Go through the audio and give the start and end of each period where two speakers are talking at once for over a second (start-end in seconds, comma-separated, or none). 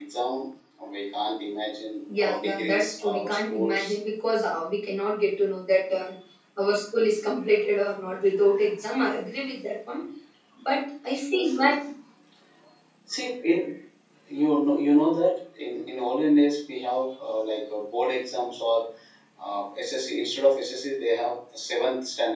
2.2-3.8